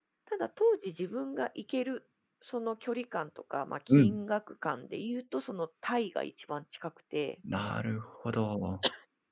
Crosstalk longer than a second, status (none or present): none